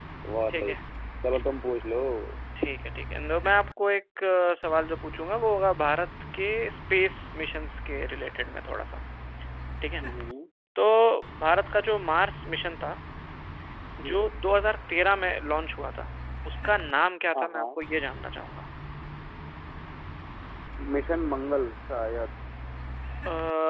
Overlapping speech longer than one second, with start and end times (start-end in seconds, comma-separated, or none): none